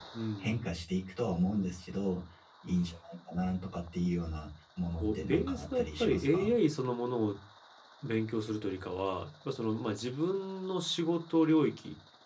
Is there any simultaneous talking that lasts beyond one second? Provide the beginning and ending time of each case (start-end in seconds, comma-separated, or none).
4.9-6.5